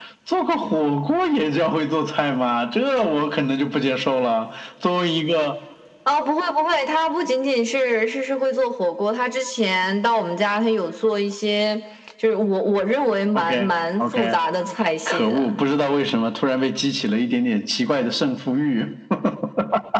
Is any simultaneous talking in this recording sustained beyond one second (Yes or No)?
No